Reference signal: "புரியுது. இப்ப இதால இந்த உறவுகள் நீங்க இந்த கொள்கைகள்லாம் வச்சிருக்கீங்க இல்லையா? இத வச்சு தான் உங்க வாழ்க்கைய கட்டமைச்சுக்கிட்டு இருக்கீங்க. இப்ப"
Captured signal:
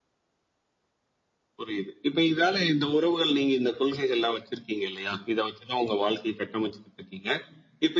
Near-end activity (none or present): none